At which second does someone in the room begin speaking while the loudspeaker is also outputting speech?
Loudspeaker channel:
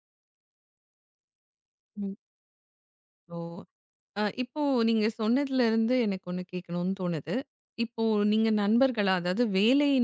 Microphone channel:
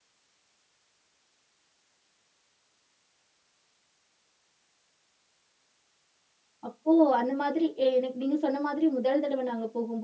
6.7 s

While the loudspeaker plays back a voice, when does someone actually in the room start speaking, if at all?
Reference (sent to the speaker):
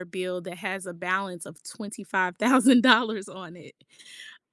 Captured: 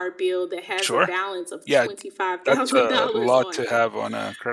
0.8 s

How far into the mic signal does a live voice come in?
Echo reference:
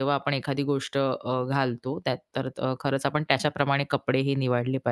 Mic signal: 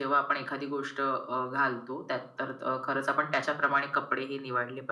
none

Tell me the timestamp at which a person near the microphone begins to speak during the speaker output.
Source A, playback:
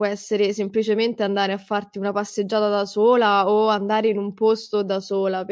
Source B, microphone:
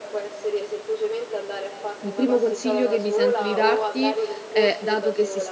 2.0 s

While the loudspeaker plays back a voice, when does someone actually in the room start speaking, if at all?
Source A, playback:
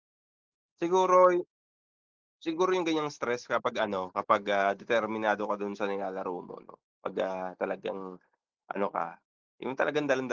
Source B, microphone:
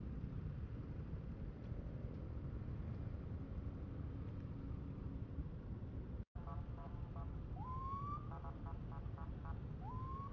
none

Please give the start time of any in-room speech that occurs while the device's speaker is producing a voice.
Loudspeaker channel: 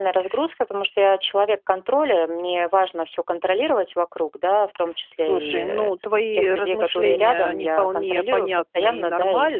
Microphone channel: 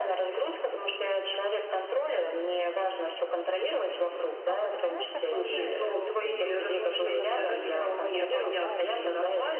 4.5 s

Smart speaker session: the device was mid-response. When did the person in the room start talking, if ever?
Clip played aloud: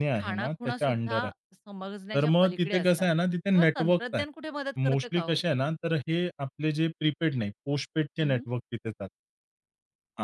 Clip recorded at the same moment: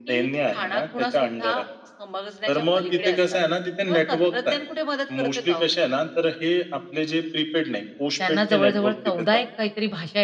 8.2 s

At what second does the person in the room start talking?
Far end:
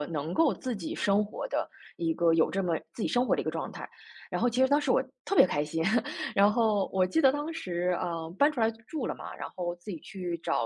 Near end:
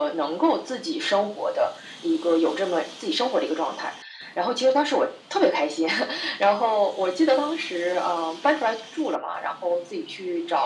none

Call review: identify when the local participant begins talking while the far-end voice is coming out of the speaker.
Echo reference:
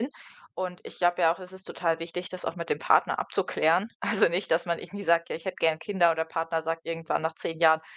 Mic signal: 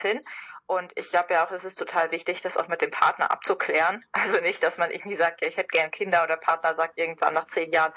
none

